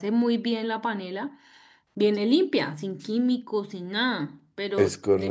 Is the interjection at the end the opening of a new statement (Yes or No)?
No